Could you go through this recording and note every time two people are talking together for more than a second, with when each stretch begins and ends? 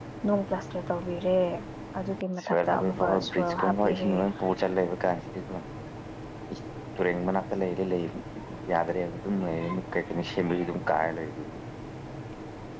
2.4-4.1

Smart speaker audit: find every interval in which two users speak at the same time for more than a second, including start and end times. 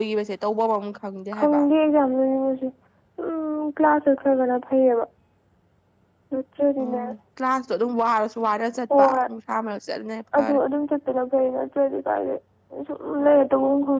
none

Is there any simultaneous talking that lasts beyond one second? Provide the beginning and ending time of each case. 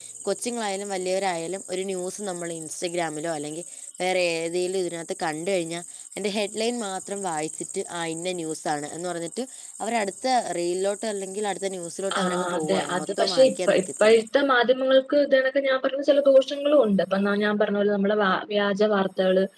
12.2-14.2

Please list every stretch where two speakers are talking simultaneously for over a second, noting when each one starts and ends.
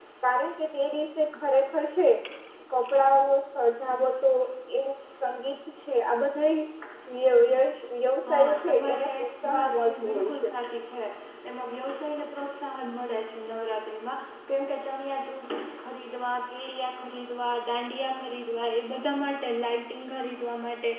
8.3-10.5

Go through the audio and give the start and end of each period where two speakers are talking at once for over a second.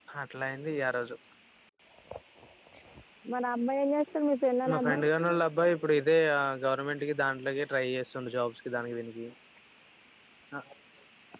none

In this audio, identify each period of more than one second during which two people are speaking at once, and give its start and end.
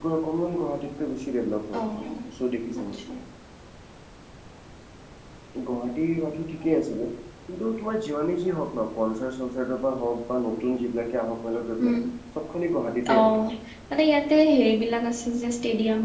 none

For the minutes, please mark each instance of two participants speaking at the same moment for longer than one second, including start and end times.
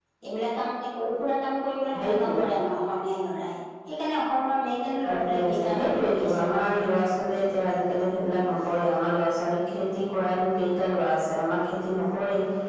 5.0-6.9

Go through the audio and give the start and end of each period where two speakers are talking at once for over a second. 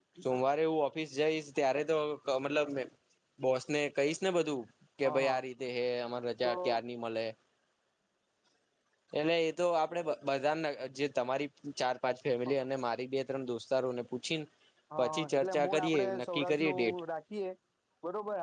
15.0-17.0

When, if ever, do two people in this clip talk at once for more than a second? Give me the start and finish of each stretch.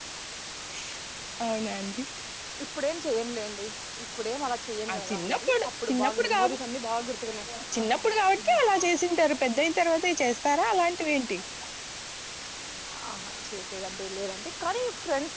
4.9-6.3

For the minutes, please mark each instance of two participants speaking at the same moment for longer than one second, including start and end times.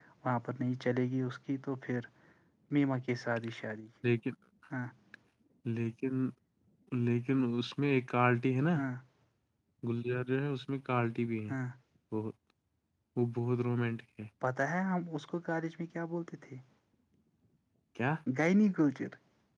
none

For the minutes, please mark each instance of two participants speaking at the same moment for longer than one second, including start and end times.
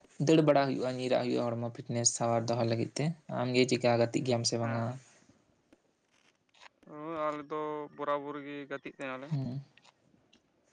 none

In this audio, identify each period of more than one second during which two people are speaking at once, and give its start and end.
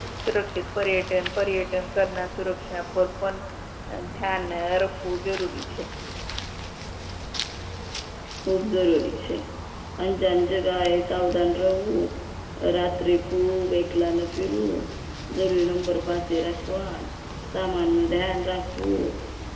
none

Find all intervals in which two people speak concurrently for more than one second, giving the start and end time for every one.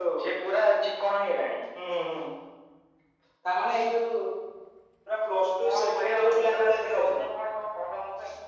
5.6-7.2

